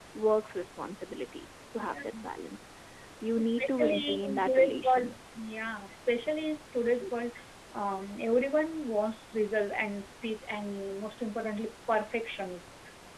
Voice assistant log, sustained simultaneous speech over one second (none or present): present